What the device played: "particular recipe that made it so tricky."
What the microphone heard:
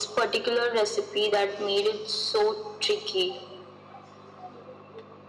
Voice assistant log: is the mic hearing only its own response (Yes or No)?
Yes